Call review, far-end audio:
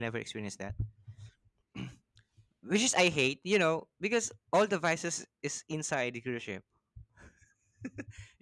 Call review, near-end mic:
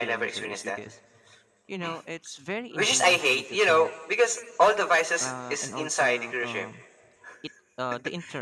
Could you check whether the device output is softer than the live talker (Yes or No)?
No